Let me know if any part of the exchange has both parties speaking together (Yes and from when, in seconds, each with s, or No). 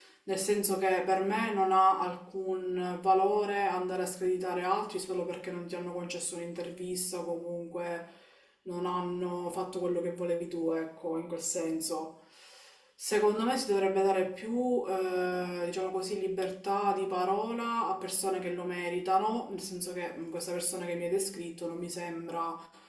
No